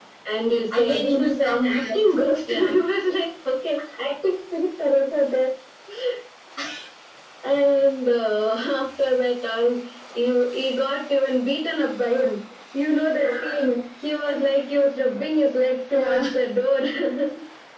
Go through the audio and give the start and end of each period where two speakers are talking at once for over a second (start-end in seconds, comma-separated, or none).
0.8-2.0